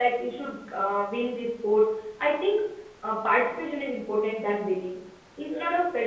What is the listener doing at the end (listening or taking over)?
listening